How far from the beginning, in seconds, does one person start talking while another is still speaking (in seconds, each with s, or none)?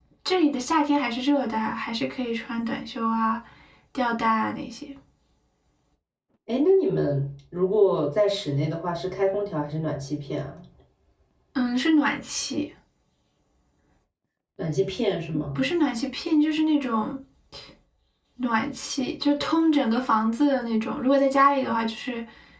none